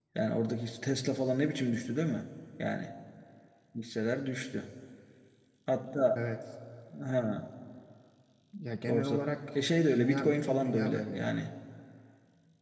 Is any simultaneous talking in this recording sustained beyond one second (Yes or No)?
Yes